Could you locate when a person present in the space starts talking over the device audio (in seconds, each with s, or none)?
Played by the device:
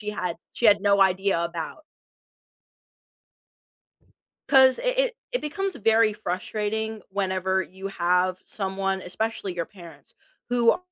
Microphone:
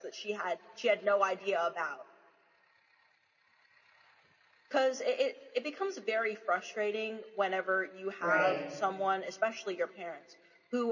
8.2 s